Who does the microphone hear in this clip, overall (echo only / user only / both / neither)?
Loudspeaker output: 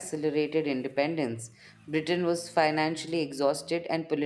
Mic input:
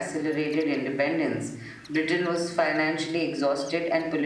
echo only